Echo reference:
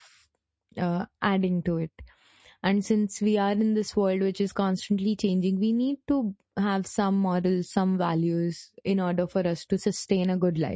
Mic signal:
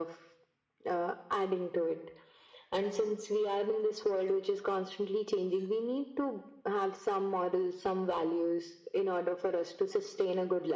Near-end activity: none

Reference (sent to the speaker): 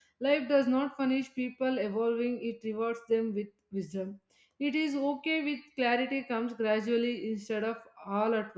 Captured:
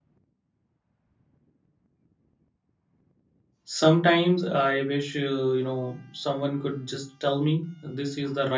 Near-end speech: present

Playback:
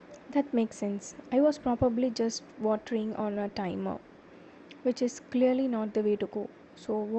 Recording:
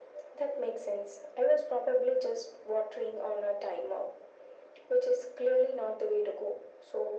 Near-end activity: none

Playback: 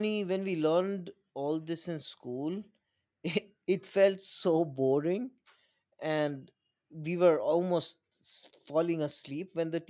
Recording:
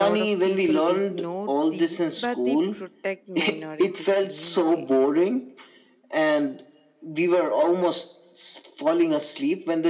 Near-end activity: present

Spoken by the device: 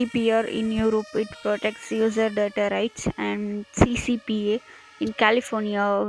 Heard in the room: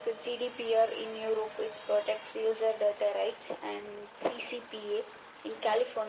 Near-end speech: none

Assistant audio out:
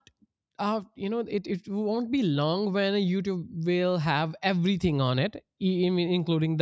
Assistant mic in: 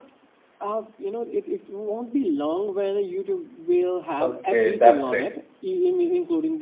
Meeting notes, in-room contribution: present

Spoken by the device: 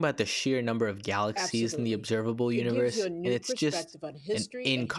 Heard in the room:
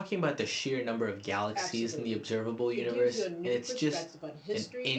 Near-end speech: none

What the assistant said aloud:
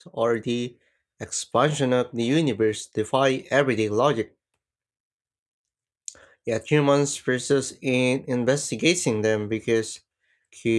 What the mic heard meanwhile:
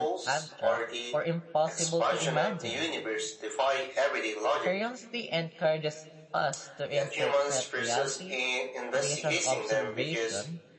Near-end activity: present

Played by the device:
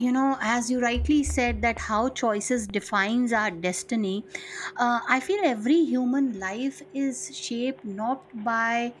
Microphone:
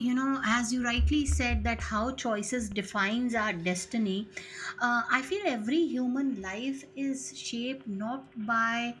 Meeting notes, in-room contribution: none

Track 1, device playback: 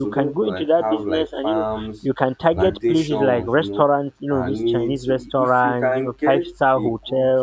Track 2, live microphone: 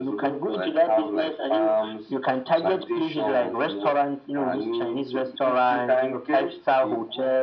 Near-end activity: none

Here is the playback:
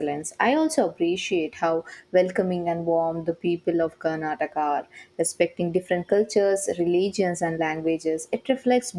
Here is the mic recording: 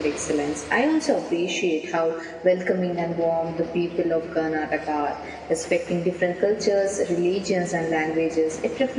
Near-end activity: none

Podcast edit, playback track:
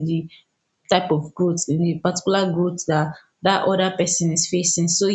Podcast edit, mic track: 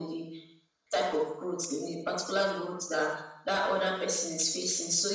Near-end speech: none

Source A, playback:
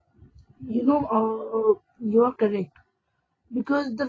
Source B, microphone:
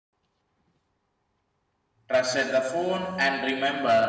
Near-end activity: present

